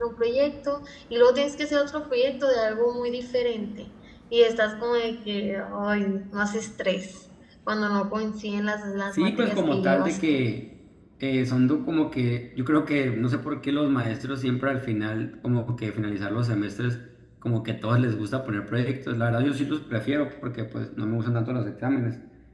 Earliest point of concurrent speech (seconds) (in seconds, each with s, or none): 9.1 s